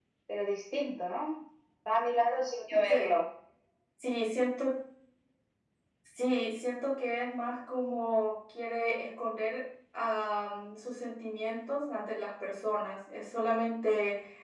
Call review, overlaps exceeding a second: none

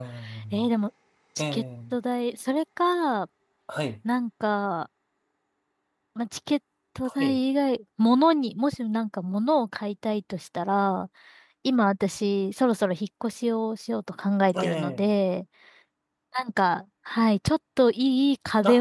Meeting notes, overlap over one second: none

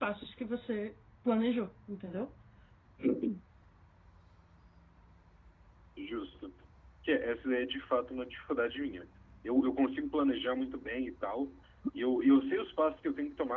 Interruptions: none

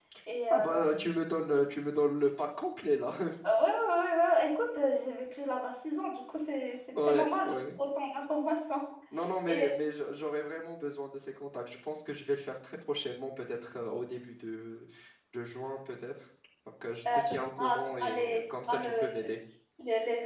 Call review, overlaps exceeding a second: present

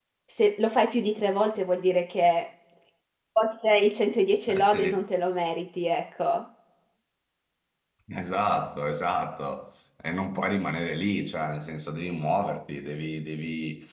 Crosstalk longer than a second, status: none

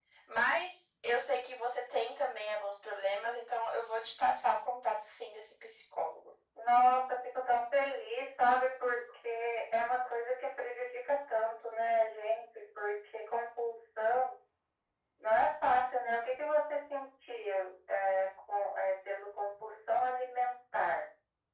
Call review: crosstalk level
none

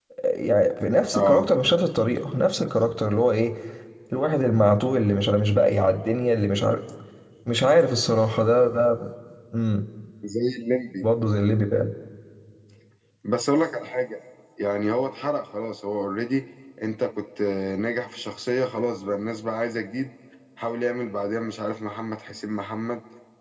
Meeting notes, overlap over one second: none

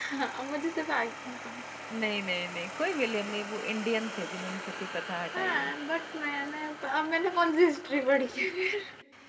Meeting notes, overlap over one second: none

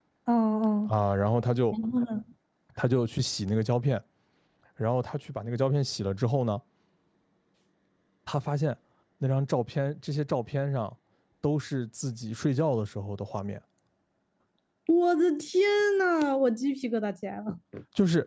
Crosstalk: none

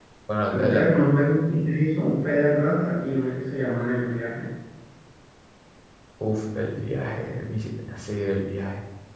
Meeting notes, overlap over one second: none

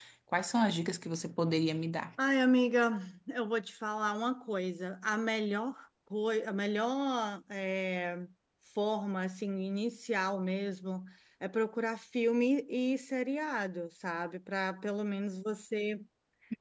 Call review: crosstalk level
none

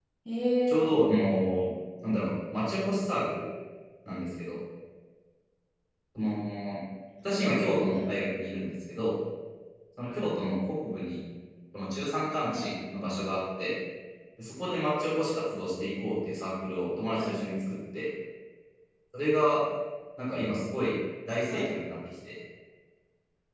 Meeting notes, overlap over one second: none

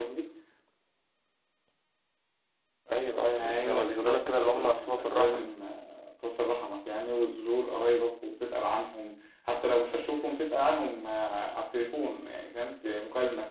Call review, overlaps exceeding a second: present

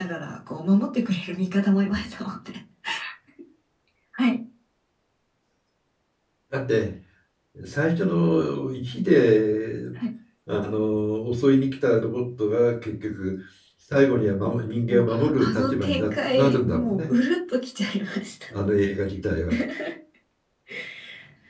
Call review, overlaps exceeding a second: present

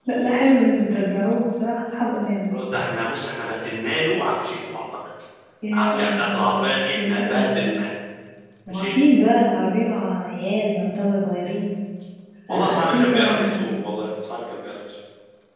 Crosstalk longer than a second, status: present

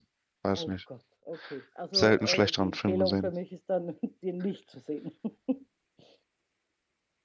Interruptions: present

